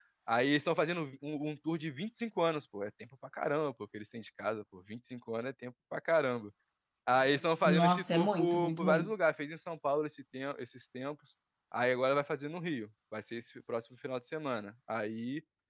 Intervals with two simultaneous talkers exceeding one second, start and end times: 7.7-9.1

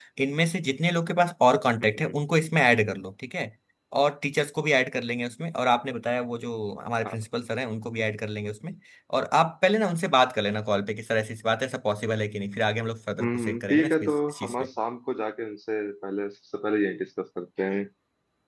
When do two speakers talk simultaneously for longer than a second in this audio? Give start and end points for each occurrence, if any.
13.2-14.5

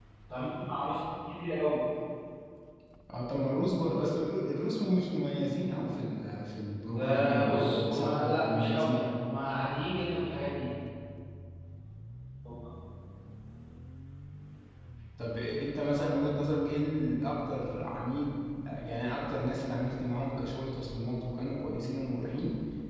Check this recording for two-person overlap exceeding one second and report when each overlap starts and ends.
7.0-9.0

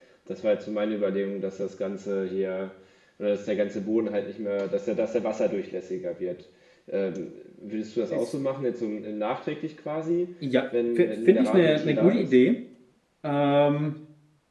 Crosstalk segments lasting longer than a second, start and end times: 11.0-12.3

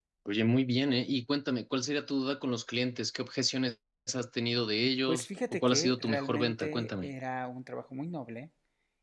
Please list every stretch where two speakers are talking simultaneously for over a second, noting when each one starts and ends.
5.1-7.1

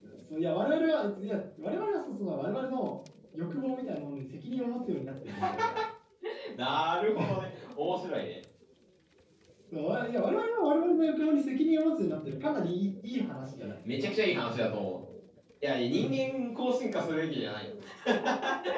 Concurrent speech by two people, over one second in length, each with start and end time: none

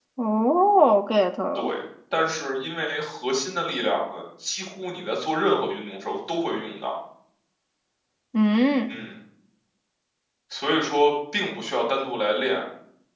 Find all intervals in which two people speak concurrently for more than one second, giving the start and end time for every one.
none

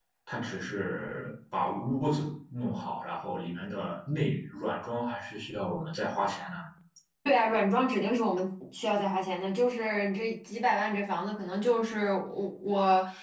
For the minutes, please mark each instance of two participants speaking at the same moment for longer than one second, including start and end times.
none

